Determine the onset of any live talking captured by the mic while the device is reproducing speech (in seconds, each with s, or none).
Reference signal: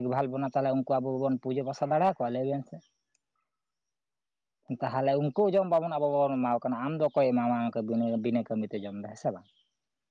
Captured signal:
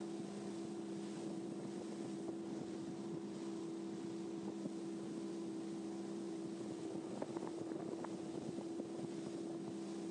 none